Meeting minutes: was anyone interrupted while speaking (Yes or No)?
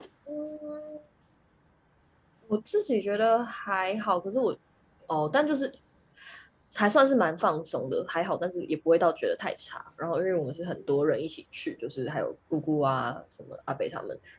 No